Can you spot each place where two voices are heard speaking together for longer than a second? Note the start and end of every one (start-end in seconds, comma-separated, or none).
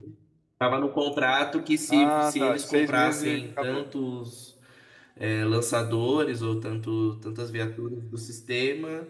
1.9-3.9